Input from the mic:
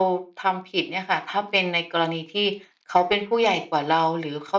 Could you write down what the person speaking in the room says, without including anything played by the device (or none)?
none